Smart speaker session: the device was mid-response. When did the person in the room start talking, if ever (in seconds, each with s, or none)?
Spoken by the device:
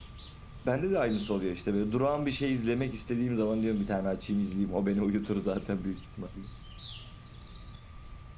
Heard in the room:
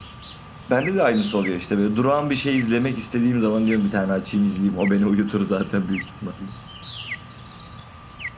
none